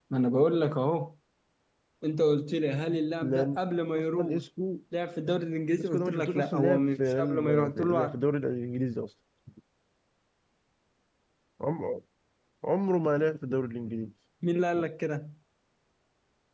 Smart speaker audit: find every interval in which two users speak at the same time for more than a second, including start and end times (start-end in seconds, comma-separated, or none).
5.8-8.2